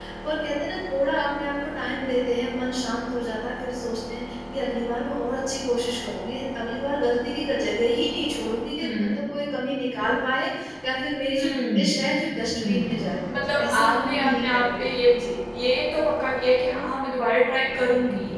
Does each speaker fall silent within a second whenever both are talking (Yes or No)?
No